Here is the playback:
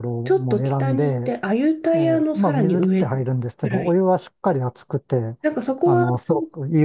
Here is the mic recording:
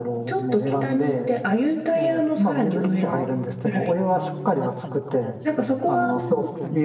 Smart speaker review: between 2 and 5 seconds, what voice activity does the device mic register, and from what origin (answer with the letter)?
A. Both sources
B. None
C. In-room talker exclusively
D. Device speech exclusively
A